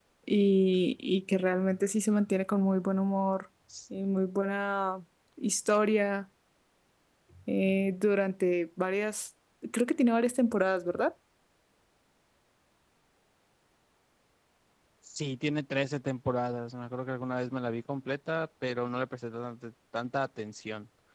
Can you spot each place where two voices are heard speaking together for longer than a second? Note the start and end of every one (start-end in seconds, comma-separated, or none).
none